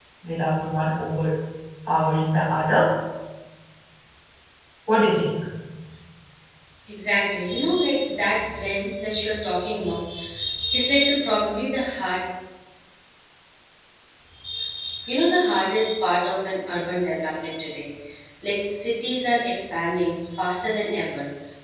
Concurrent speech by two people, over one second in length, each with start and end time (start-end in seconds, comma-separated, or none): none